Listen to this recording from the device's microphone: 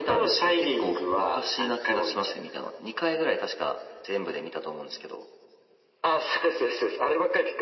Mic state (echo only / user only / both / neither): echo only